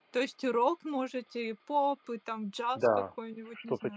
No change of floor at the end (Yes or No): No